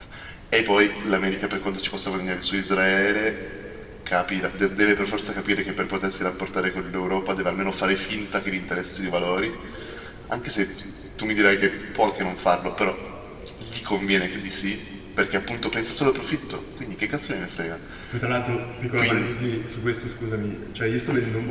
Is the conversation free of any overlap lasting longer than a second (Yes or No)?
Yes